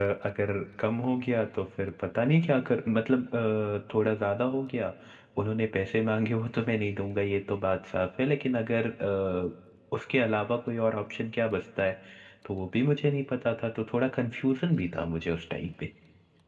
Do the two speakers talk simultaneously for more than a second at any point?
No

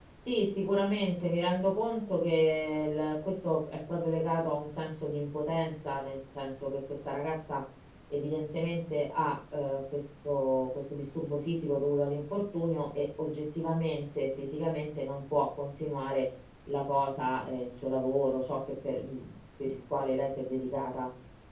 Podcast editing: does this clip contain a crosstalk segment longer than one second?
No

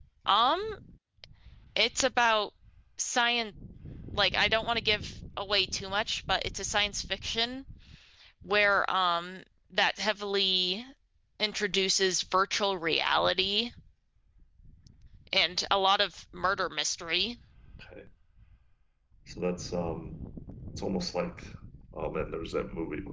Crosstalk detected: No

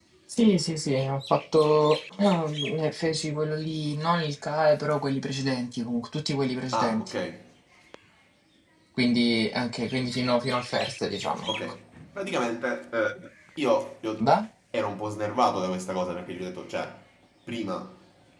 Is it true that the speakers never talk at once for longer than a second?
Yes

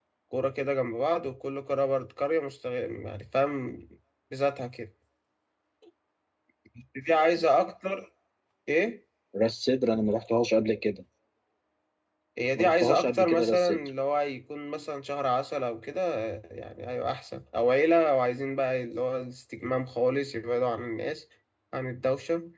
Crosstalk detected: Yes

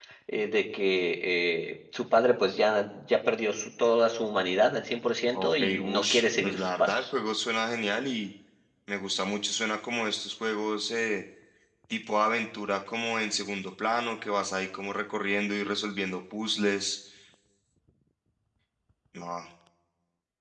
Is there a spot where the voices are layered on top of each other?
Yes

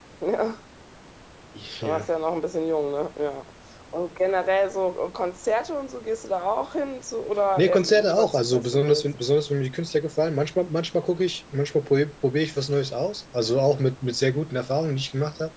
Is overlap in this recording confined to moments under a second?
No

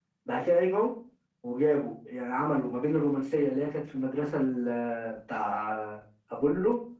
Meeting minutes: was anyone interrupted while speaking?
No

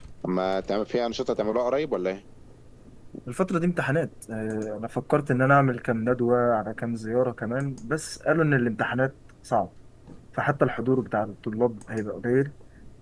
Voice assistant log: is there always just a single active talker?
Yes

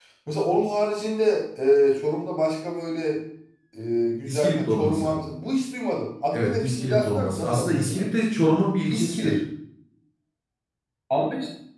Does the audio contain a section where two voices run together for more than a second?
Yes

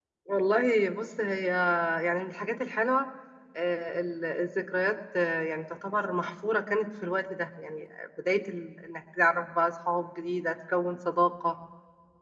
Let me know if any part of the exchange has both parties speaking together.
No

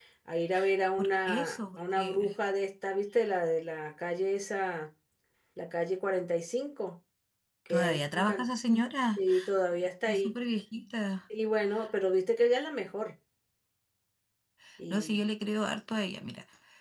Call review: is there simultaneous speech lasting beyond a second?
Yes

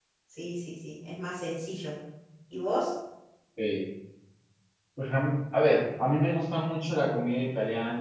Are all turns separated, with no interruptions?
Yes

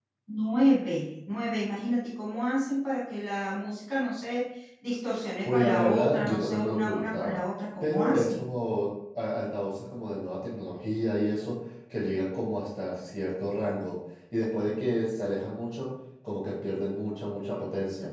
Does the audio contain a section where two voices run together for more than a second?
Yes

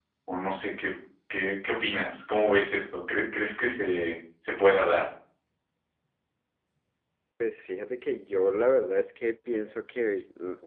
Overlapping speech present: No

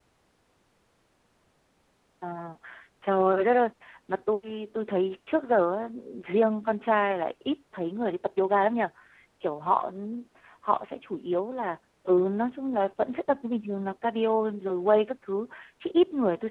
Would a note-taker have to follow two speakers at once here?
No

